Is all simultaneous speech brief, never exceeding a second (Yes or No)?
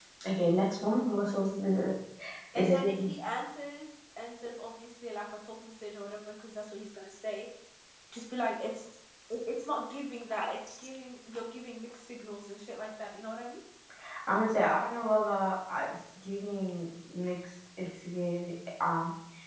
Yes